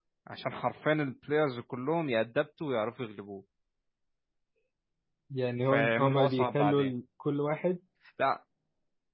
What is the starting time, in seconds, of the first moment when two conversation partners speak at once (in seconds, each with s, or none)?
5.7 s